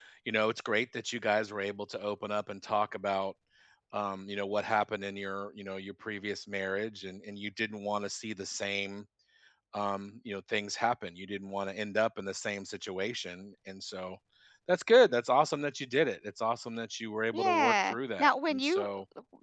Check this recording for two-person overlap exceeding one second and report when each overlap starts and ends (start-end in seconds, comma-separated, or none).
17.3-18.9